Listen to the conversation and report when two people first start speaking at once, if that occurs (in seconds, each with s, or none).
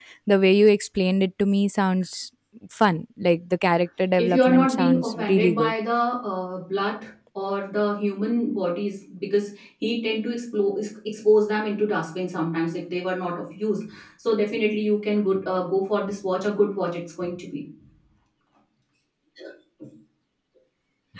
4.2 s